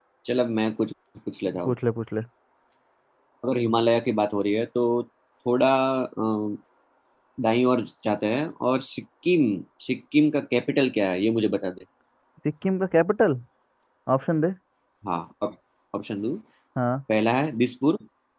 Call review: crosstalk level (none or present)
none